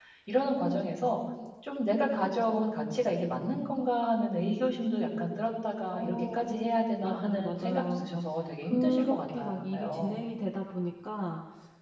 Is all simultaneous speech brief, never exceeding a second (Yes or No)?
No